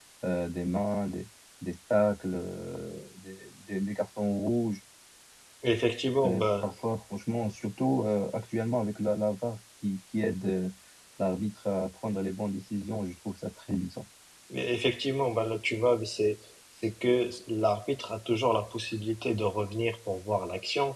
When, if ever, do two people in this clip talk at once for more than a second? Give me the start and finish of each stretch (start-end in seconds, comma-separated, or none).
none